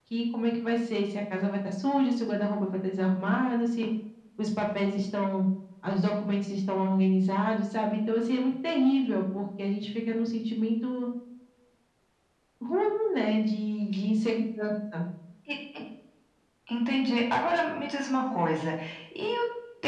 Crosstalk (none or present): none